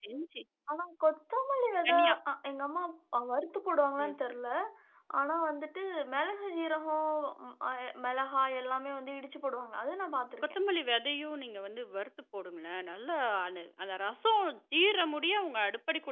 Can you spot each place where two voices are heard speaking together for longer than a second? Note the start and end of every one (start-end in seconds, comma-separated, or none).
none